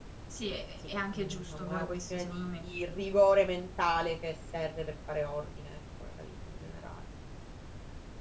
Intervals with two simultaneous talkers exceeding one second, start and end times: 0.9-2.5

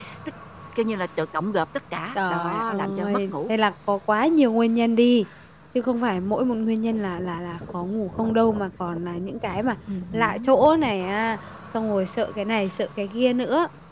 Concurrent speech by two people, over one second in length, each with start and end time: 2.1-3.5

